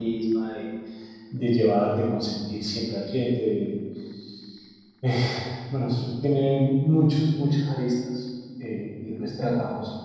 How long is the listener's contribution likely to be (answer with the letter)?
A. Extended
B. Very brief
B